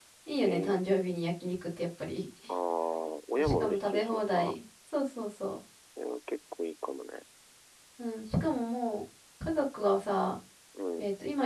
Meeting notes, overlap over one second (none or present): present